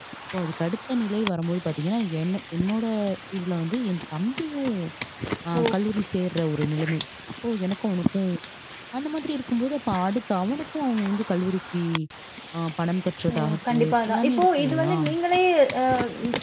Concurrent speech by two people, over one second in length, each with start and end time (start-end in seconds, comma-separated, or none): 13.3-14.9